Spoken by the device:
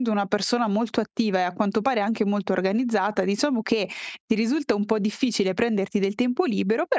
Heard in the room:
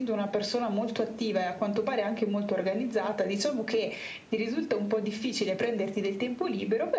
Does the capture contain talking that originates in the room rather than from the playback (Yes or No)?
No